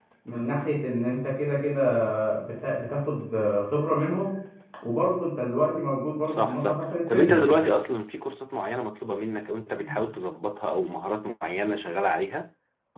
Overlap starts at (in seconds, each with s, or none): 6.3 s